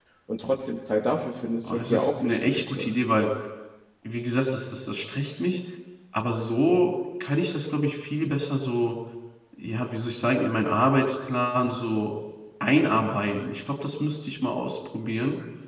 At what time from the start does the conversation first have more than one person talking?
1.6 s

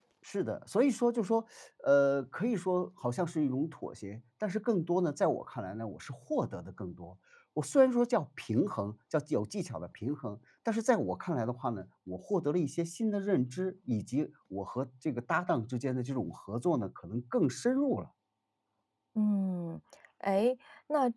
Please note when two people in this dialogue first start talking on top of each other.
none

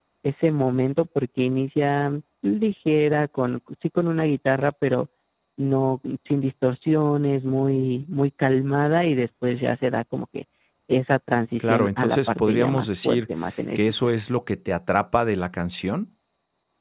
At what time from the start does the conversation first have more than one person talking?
11.6 s

